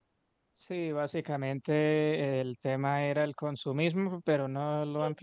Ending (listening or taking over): listening